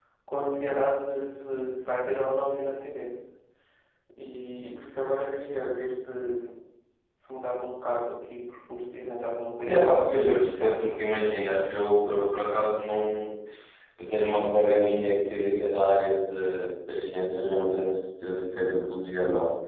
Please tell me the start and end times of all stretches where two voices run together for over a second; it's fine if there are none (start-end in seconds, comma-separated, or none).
9.7-10.9